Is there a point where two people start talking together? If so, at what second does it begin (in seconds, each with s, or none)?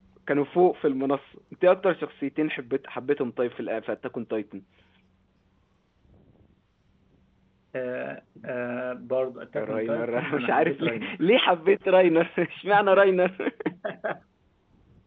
9.6 s